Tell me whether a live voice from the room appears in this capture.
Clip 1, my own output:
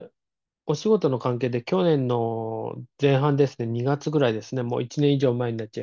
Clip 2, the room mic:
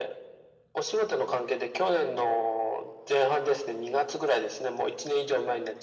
No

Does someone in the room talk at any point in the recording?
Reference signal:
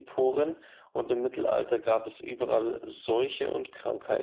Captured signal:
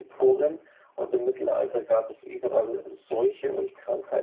No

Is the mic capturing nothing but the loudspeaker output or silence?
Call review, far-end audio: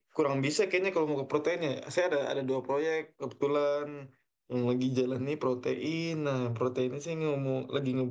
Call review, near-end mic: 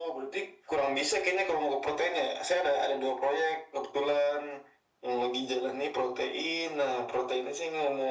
Yes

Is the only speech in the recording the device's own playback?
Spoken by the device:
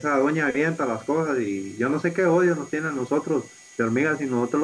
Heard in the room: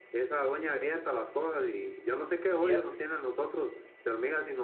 No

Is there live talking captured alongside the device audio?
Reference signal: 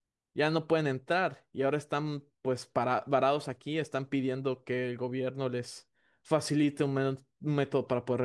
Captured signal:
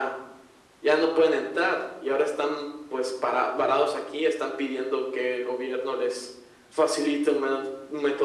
No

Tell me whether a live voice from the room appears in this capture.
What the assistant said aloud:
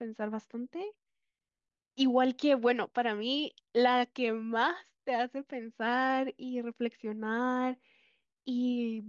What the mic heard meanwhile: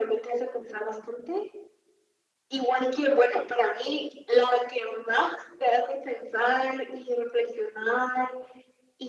No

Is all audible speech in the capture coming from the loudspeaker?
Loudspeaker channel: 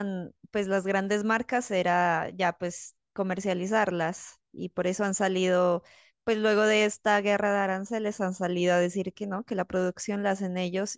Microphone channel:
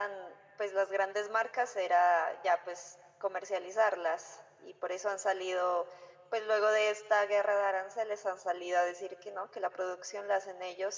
Yes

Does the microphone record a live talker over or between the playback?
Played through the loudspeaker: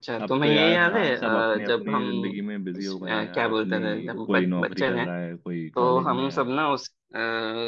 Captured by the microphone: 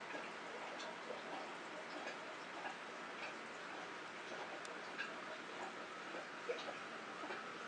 No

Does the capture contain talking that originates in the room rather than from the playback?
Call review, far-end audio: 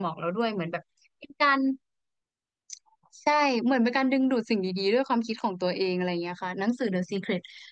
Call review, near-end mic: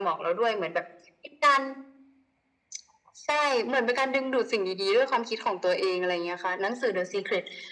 No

